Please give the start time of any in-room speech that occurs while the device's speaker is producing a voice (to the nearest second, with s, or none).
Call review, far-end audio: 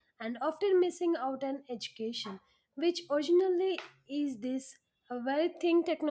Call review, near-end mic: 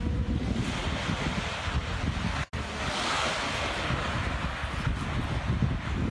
none